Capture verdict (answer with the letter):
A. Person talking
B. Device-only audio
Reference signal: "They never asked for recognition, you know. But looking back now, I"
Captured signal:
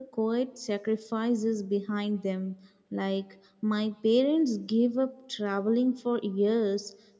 A